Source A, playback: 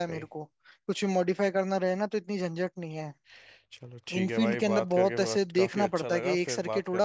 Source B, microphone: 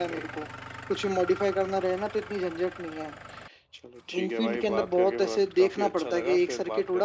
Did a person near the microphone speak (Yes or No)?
No